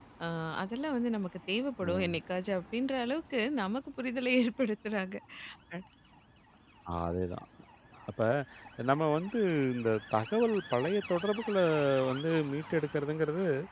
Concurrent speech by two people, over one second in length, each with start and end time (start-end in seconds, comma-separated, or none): none